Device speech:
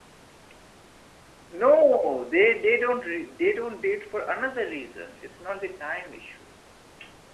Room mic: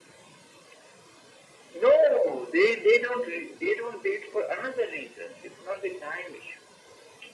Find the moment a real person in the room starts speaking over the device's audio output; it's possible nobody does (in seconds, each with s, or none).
none